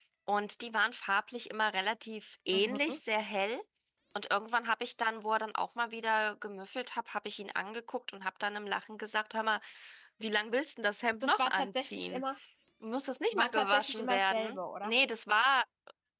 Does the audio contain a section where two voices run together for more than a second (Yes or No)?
Yes